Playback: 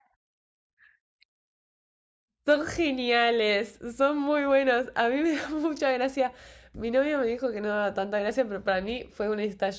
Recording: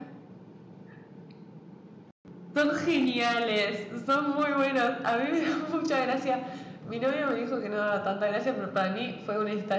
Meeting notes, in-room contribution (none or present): none